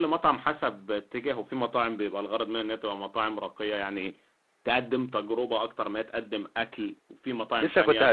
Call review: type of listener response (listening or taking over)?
taking over